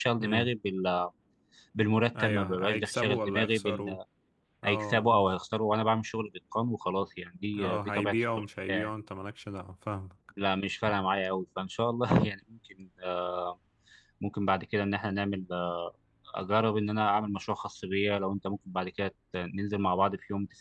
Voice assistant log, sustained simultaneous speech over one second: present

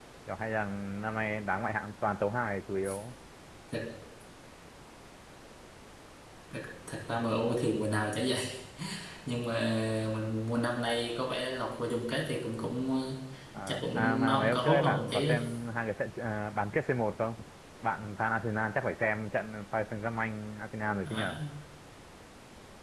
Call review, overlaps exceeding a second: present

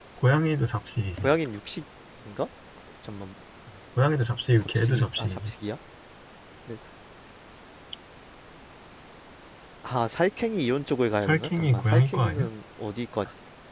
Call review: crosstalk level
present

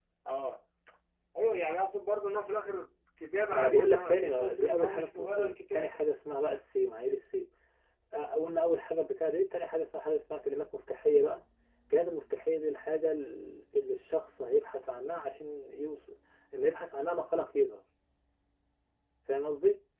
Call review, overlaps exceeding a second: present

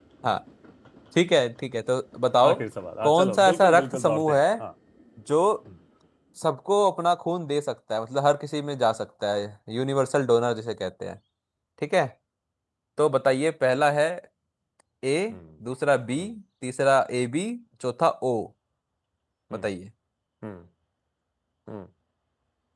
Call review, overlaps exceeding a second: present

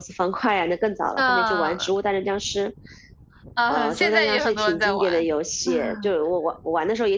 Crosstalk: present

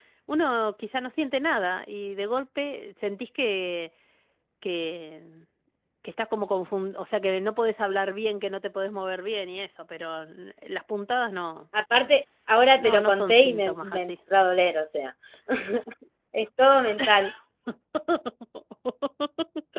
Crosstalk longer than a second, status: present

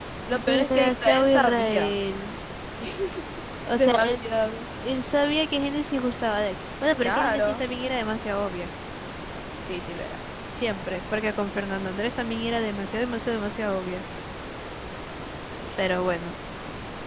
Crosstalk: present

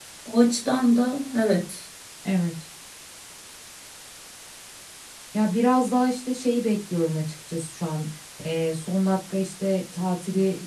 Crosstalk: none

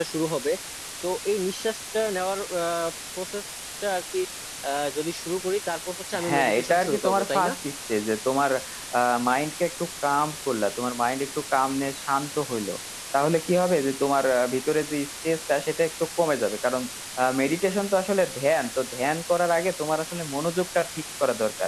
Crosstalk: present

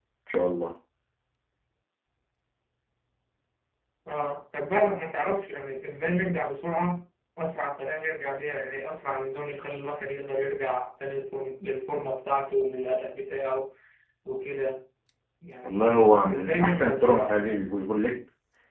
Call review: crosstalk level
present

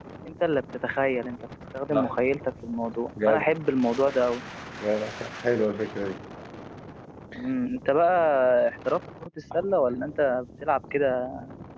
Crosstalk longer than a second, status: none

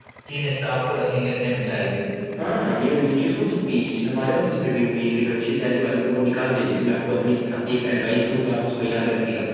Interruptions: none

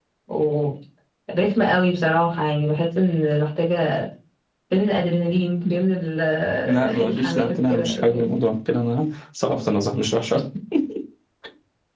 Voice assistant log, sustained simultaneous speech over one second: present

